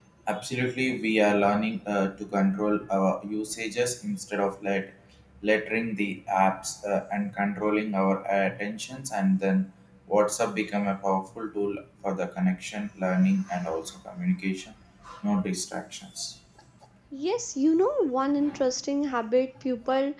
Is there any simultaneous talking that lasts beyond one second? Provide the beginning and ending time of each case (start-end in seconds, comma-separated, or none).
none